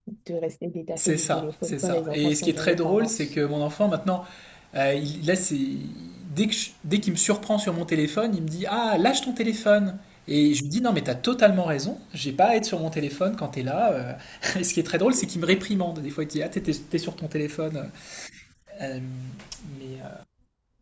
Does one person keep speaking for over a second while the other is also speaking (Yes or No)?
Yes